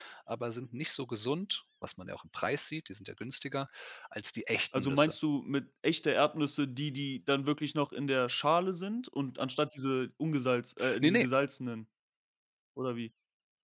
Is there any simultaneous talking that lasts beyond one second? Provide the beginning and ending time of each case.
none

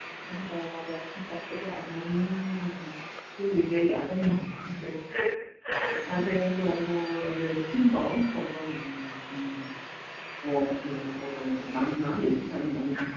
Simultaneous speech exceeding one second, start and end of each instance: none

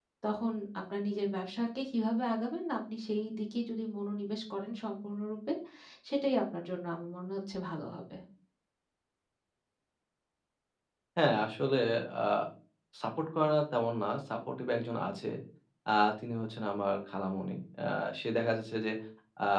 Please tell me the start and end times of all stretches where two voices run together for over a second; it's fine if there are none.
none

